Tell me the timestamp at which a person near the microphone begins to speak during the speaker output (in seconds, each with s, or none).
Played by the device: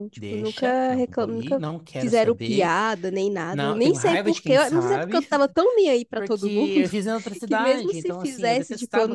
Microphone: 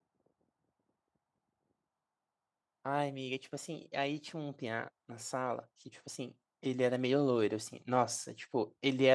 2.8 s